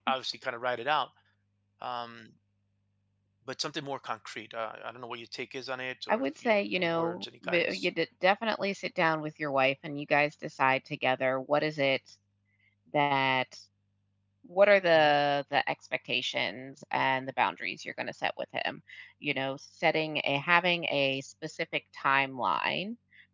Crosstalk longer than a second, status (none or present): present